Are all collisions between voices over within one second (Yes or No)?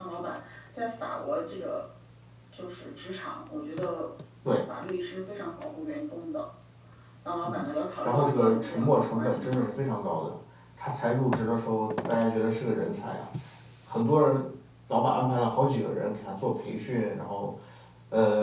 No